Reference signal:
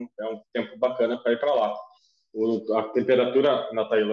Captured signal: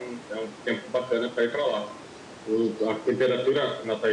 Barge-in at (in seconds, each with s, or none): none